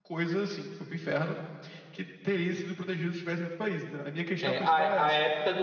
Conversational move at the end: taking over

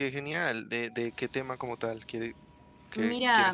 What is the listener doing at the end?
taking over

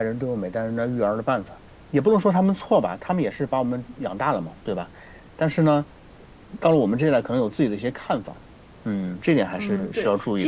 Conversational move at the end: taking over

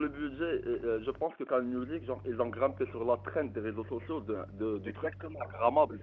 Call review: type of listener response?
taking over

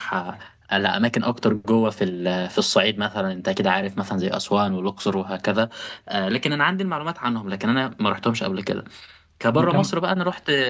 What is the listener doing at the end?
listening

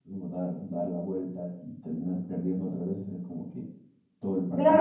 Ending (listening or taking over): taking over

